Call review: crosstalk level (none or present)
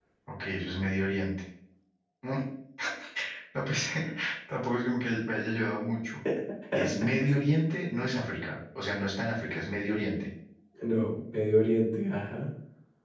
none